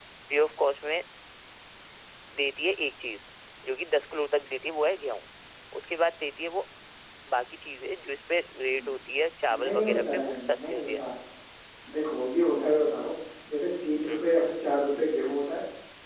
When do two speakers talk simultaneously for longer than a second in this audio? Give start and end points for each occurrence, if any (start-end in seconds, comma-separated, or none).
9.6-11.0